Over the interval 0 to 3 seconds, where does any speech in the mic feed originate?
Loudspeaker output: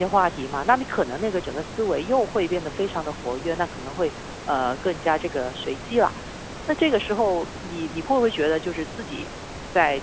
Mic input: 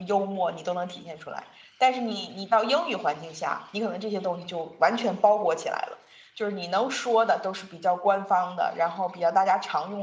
user only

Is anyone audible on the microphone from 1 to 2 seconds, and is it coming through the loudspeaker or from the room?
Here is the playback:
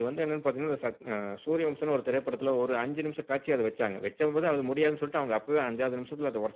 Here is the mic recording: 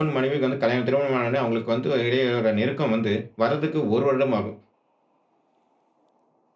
user only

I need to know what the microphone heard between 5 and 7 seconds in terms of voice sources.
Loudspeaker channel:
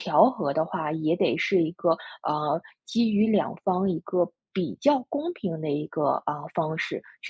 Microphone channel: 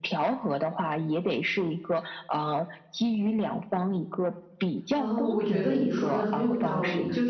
both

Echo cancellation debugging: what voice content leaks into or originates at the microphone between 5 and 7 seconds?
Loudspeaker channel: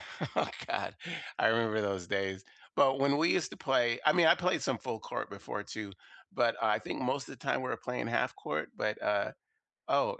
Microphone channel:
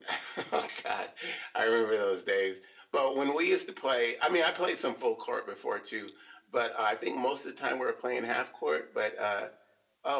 echo only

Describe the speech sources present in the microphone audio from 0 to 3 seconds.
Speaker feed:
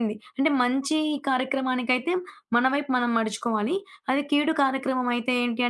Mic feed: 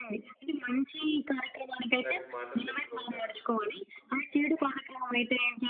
both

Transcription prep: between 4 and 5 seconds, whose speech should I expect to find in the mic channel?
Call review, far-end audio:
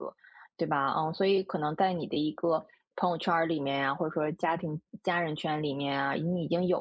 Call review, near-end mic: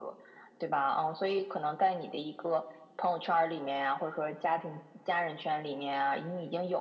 echo only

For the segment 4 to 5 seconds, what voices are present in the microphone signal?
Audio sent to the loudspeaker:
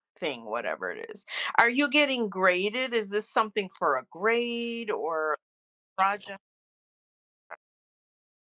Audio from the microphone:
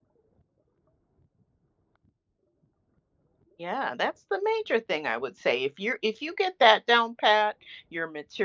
user only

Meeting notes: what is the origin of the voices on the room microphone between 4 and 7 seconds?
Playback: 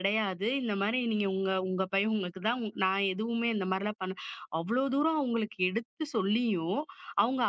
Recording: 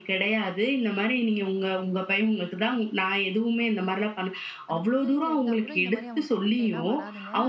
both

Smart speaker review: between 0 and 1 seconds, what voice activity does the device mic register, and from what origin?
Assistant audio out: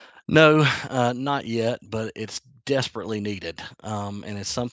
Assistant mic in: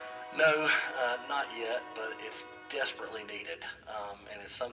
echo only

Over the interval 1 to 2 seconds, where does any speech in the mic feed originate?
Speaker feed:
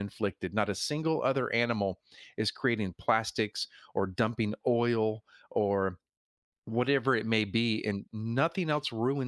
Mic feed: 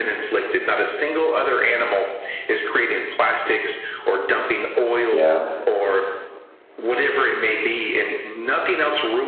echo only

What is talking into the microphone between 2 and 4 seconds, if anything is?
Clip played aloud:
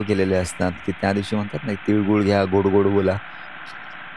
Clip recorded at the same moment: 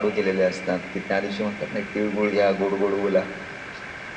echo only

